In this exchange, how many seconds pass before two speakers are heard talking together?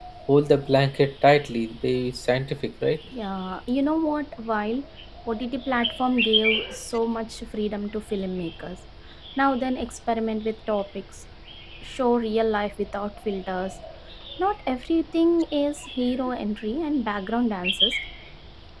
none

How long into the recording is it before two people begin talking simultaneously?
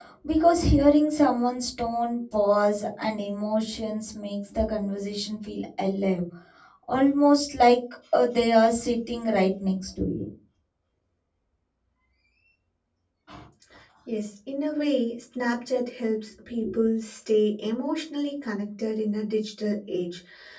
none

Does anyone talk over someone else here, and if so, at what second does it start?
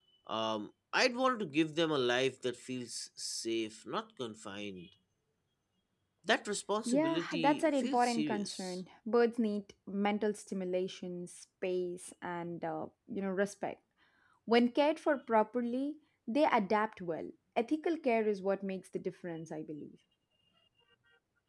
6.8 s

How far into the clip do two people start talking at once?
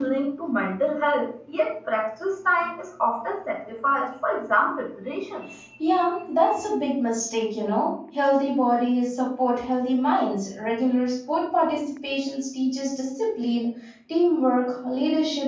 none

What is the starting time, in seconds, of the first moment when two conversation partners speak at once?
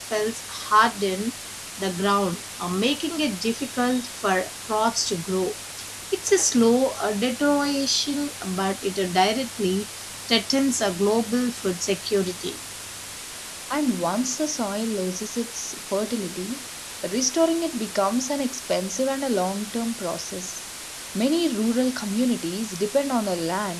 none

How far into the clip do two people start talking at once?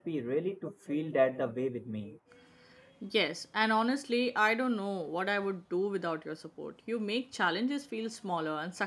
none

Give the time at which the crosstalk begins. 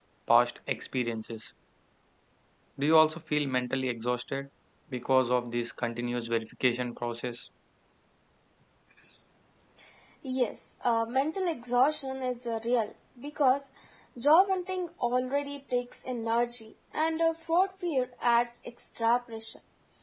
none

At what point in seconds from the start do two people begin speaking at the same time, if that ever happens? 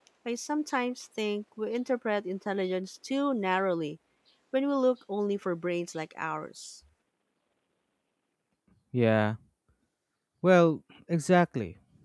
none

